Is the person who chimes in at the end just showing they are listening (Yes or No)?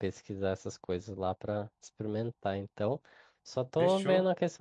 Yes